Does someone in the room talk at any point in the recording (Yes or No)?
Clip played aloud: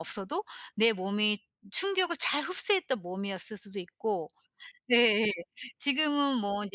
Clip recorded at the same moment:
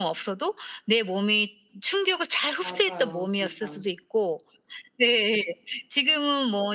Yes